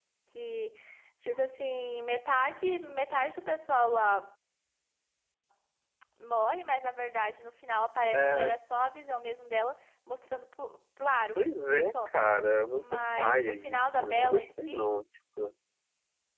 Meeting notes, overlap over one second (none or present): present